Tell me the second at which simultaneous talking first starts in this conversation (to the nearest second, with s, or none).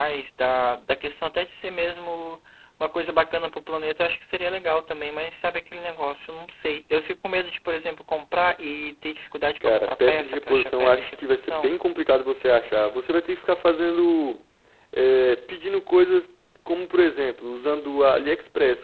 10 s